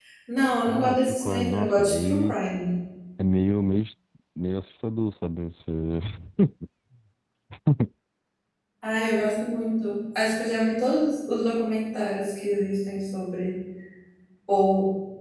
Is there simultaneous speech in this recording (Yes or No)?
Yes